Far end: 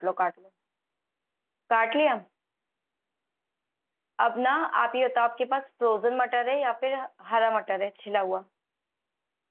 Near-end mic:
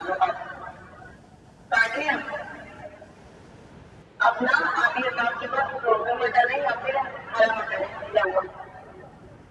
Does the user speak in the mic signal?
No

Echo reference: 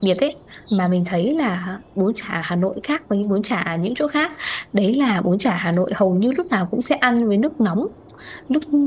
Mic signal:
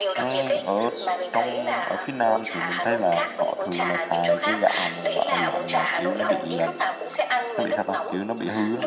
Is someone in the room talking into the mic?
Yes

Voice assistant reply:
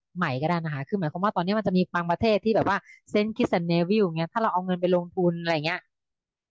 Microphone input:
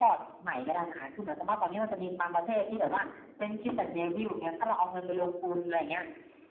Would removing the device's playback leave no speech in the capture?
Yes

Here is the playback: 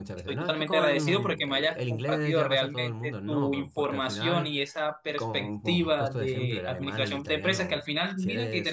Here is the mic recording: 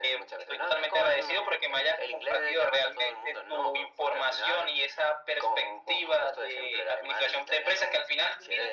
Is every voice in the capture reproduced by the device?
Yes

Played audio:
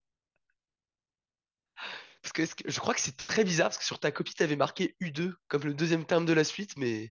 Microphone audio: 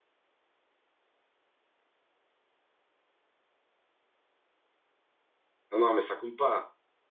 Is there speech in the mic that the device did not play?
Yes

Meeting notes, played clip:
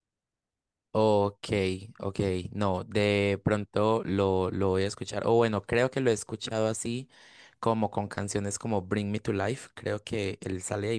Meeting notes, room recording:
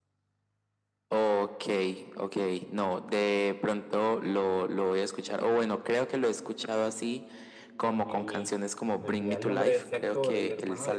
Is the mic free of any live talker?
No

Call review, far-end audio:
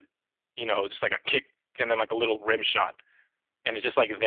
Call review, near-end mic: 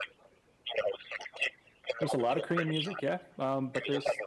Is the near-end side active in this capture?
Yes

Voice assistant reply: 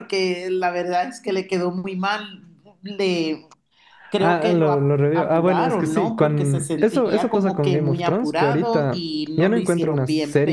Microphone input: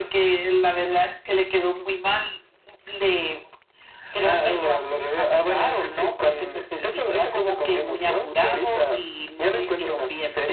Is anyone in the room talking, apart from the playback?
No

